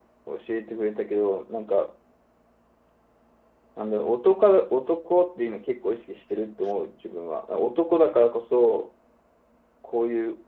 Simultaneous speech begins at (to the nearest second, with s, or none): none